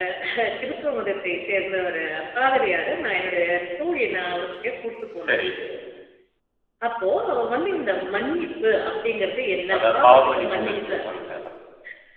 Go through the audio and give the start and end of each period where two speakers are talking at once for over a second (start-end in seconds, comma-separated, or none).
9.8-10.9